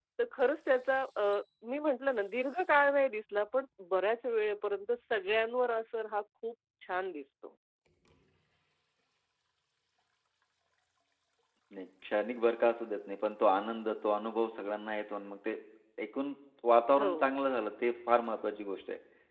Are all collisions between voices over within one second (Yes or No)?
Yes